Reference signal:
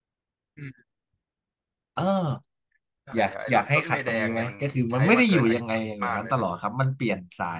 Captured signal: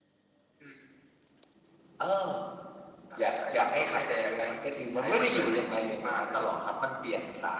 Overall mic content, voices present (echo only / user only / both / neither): echo only